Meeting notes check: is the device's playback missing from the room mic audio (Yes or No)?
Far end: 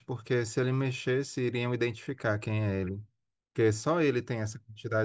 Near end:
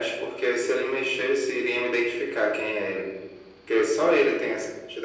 No